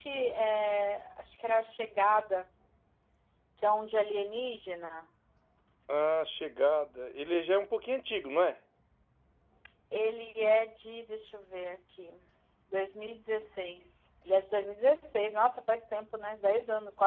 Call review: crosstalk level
none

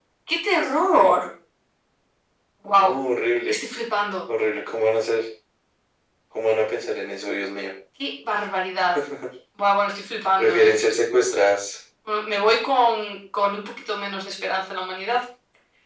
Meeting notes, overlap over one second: none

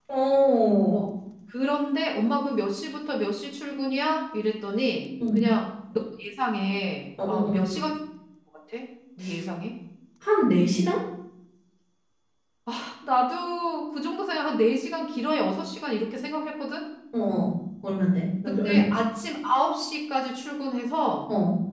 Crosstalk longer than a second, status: none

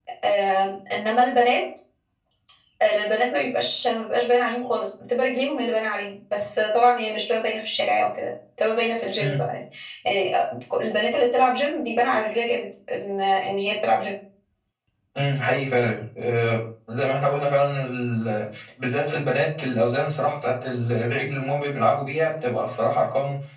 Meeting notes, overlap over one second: none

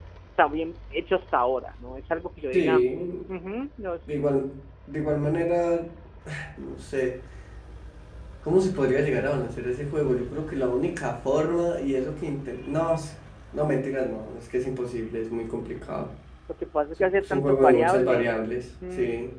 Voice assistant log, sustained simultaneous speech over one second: present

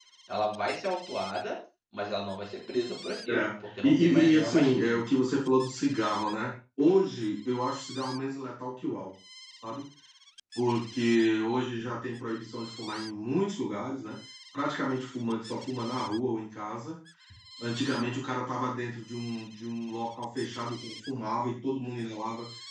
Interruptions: present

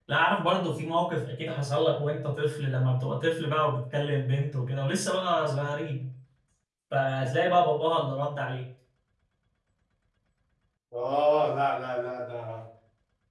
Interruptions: none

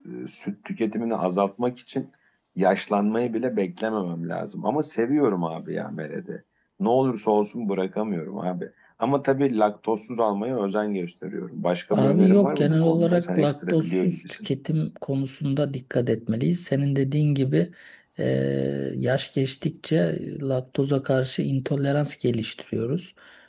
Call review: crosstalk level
present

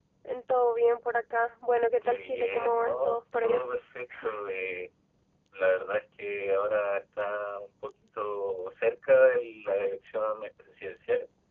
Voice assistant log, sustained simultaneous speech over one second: present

